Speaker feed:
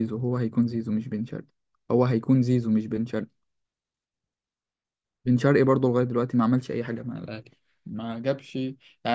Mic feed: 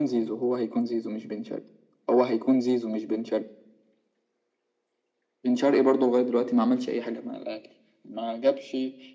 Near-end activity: none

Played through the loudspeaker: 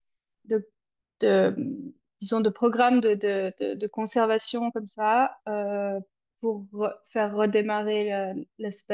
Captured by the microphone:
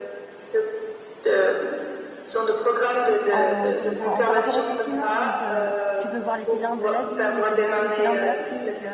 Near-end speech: present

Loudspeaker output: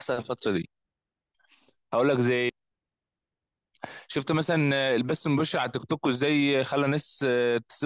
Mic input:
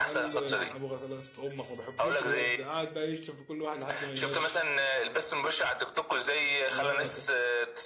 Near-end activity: present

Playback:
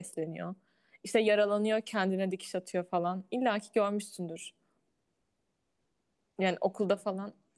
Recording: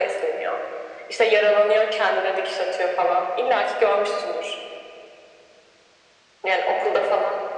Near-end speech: none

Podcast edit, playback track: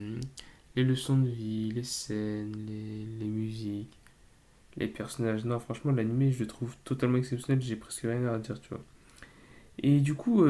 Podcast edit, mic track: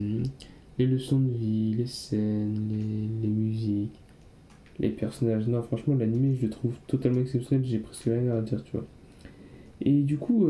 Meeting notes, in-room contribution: none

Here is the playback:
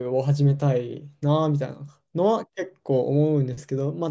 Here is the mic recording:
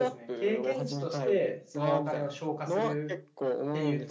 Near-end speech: present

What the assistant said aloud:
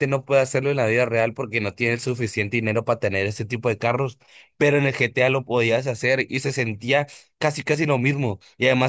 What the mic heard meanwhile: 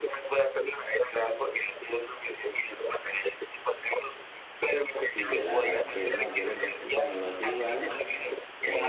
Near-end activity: present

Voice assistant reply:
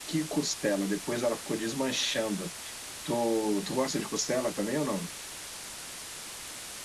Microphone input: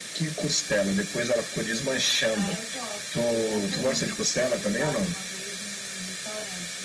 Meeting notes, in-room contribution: present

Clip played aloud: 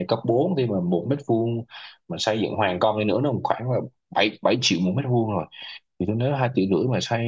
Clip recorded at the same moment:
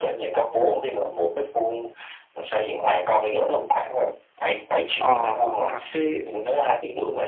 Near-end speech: present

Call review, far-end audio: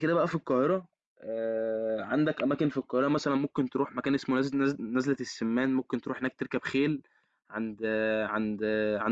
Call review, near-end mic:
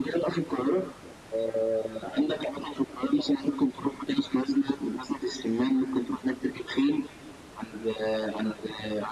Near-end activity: none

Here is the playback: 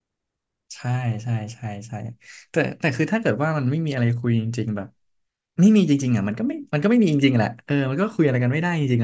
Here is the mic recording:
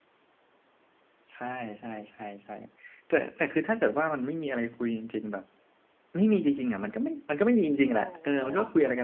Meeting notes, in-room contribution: present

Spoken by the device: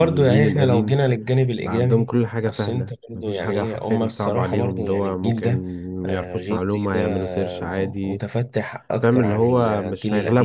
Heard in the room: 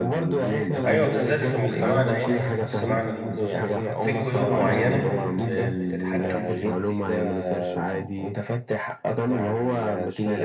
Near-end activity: present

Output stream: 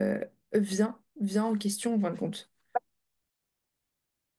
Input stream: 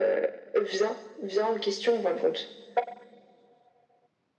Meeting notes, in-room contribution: none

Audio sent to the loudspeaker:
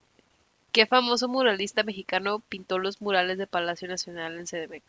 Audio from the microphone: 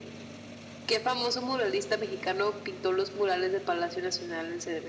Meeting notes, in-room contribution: none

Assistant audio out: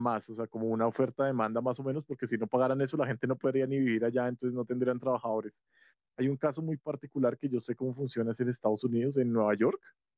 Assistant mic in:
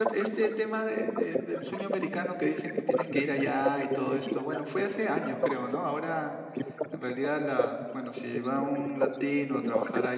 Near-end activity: present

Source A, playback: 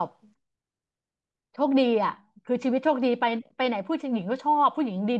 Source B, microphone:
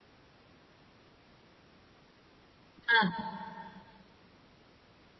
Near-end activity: present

